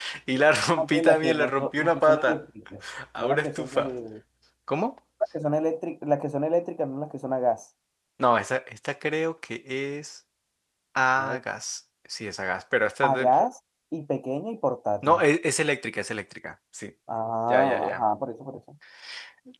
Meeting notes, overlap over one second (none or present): present